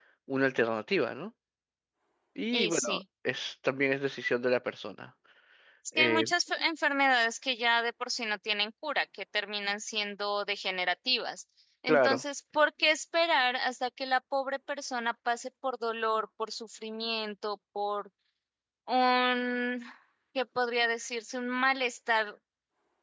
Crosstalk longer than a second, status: none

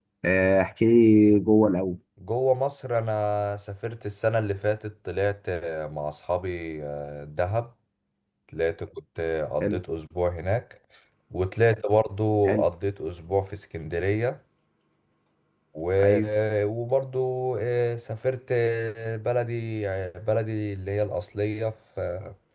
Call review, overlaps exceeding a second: none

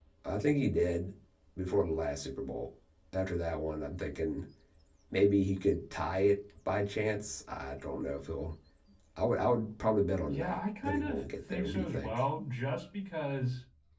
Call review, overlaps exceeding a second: present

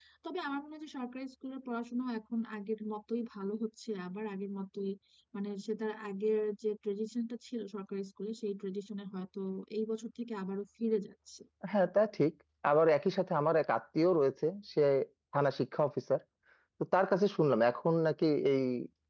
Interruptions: none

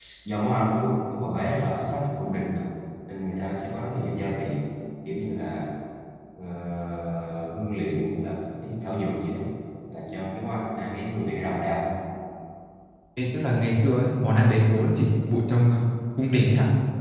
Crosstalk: none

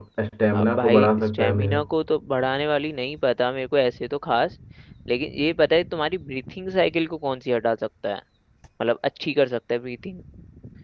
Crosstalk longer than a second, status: present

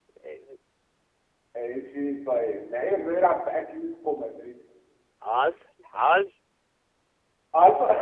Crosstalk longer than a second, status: none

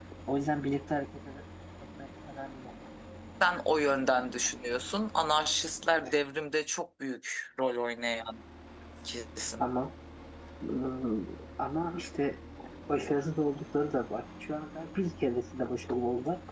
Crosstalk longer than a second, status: none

